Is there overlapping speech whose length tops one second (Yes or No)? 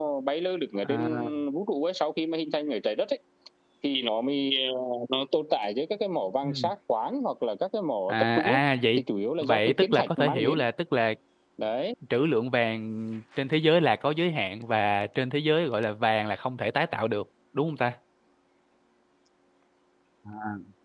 Yes